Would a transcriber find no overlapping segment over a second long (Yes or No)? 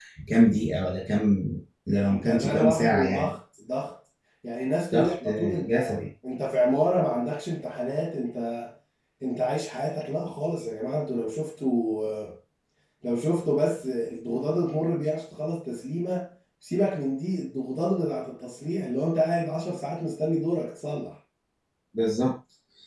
No